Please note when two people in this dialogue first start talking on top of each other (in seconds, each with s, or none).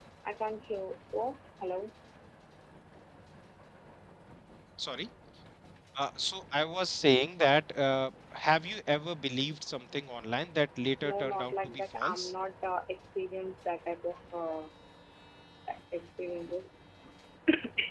11.0 s